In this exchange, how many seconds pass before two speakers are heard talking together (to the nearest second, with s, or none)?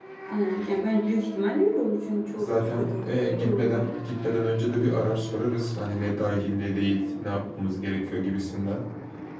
2 s